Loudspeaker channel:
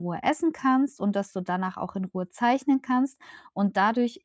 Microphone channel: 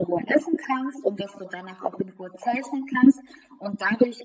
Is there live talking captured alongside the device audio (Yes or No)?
No